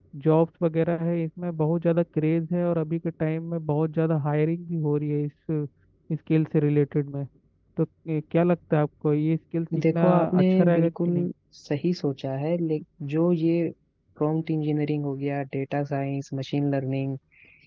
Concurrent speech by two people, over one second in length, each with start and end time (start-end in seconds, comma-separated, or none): 9.8-11.1